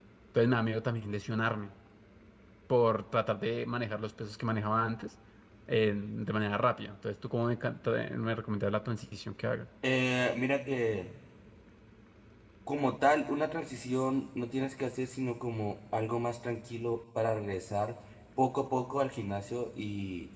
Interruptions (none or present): none